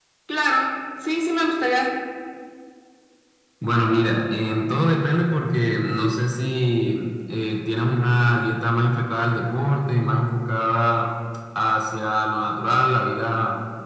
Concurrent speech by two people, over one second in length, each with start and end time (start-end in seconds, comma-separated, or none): none